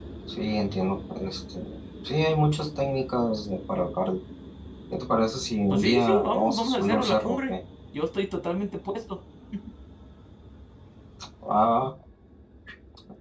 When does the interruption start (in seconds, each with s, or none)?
5.7 s